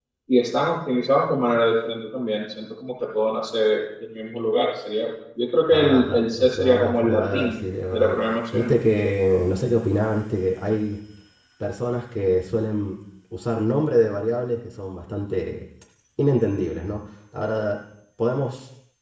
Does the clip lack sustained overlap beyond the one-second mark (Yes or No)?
No